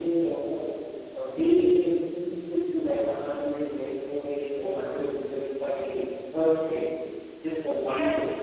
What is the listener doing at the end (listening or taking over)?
taking over